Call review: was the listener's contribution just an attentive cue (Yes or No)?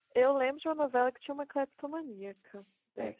No